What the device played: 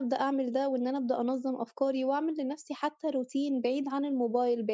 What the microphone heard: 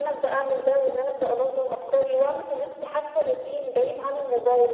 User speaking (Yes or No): No